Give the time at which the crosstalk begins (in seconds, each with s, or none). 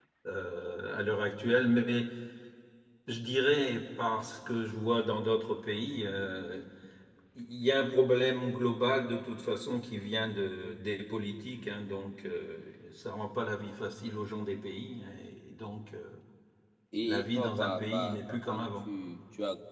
17.0 s